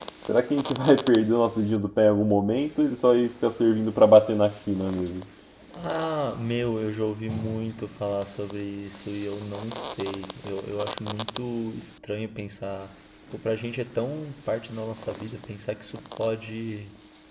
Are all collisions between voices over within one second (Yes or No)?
Yes